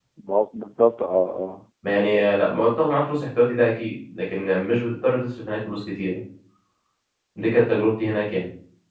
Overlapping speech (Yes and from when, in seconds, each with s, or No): No